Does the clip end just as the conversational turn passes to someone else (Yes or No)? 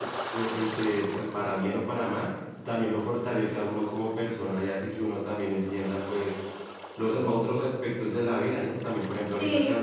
No